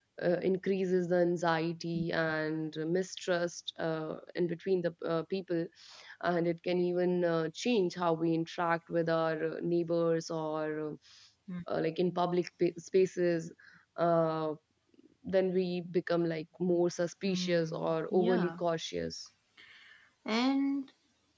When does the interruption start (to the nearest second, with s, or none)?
17 s